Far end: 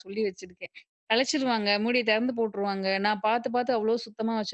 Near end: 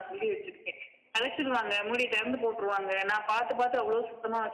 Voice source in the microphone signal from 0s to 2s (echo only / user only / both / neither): echo only